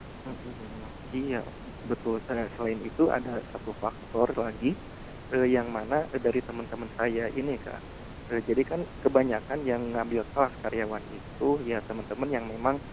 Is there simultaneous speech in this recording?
No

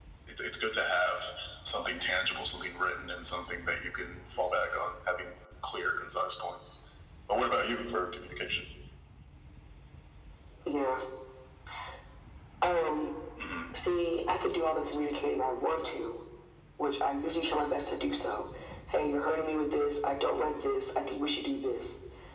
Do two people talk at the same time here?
No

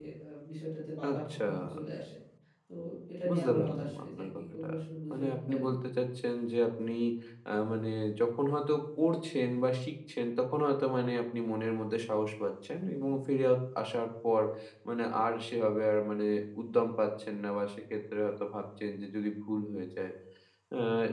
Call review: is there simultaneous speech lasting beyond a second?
Yes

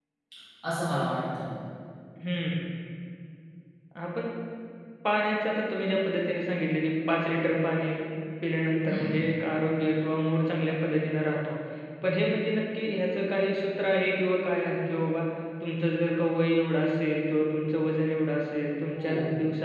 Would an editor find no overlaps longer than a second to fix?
Yes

